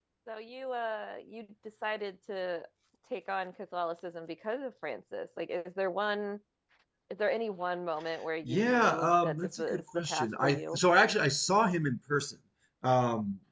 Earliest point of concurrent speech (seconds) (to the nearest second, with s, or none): 8 s